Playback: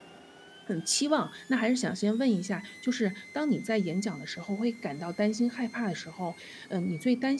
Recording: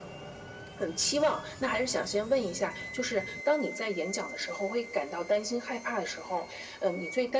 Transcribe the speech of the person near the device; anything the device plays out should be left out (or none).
none